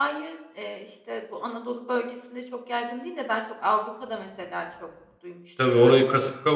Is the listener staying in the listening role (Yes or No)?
No